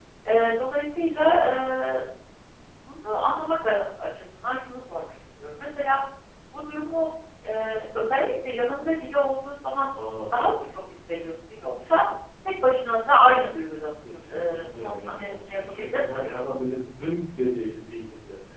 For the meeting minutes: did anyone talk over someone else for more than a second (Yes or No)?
Yes